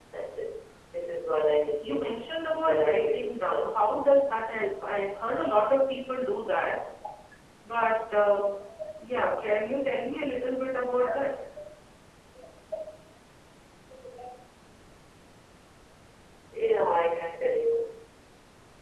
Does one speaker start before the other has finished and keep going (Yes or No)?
Yes